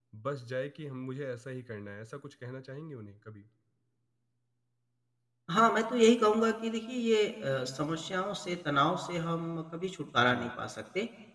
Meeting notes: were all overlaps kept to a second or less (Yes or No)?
Yes